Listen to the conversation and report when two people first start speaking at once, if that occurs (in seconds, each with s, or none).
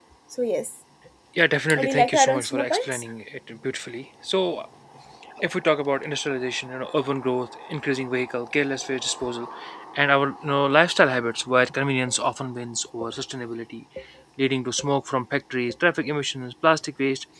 1.8 s